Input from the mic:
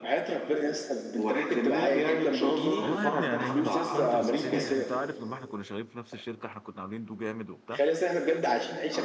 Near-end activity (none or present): present